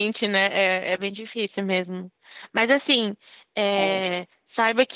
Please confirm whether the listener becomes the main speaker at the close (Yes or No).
No